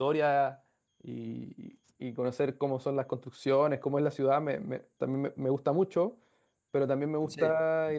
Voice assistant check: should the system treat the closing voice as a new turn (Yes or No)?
No